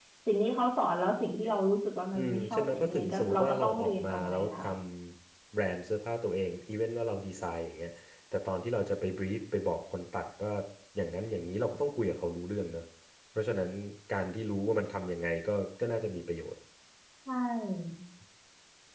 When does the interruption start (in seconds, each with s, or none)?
2.1 s